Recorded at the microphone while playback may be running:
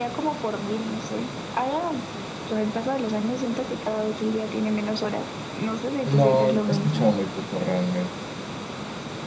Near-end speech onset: 6 s

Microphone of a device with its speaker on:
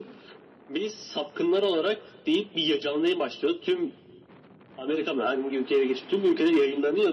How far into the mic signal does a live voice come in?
none

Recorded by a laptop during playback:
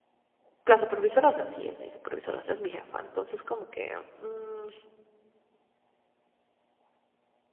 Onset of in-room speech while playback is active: 1 s

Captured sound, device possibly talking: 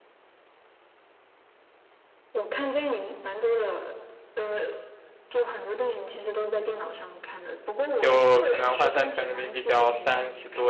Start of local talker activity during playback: 8 s

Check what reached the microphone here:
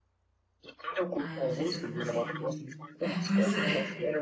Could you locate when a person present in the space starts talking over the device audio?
1 s

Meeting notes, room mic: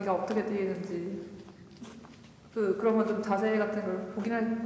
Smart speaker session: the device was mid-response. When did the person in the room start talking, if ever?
none

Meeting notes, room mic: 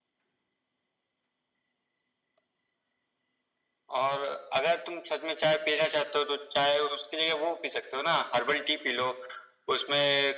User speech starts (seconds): none

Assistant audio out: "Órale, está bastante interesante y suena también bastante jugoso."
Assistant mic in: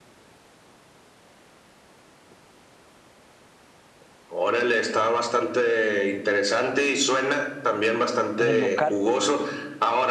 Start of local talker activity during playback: 8 s

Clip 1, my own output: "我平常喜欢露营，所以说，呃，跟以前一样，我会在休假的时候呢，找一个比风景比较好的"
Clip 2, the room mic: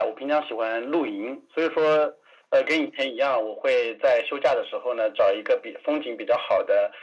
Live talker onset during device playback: none

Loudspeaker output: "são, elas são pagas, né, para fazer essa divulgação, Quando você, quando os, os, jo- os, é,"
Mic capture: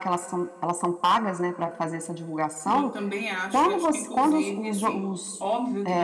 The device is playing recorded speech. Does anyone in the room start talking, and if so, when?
3 s

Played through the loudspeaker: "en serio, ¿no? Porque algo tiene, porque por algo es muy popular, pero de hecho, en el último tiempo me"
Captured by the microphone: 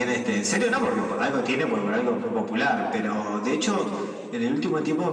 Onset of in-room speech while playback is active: none

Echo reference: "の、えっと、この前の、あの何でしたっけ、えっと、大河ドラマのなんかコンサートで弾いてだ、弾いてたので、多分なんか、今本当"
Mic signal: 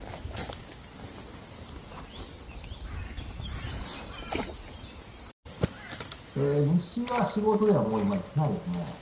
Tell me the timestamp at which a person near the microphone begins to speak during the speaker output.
6 s

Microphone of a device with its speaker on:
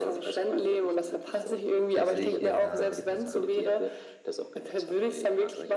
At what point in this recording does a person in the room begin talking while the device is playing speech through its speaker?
2 s

